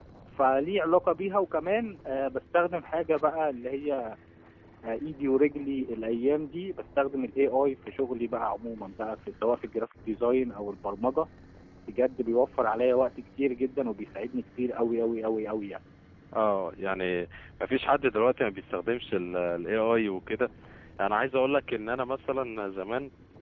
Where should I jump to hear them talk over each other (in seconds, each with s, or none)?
none